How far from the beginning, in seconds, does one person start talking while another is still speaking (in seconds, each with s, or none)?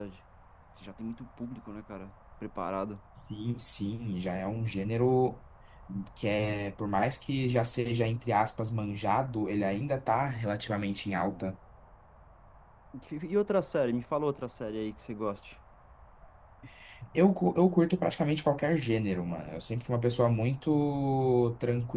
none